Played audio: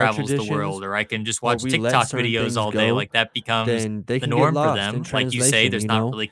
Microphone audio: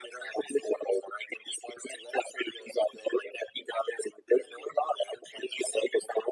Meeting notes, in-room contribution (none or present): none